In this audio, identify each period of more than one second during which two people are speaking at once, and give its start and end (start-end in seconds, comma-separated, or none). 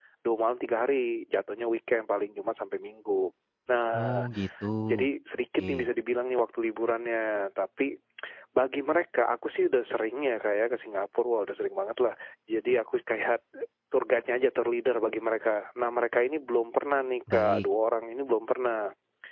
none